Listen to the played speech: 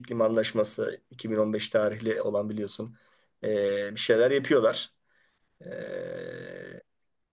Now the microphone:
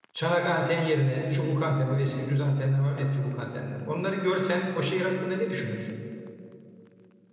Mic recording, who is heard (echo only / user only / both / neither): user only